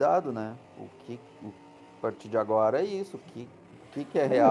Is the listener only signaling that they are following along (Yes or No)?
No